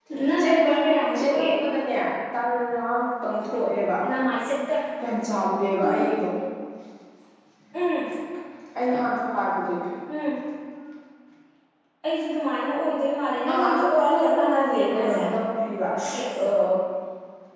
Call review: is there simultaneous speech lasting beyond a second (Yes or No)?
Yes